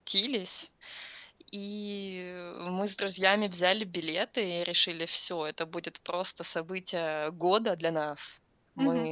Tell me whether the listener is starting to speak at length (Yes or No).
Yes